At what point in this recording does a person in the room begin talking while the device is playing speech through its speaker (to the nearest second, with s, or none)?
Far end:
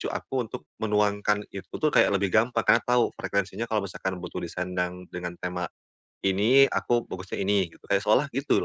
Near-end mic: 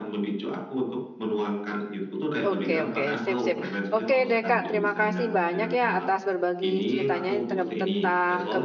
2 s